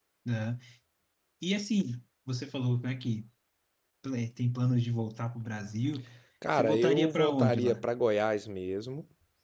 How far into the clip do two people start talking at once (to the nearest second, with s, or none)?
7 s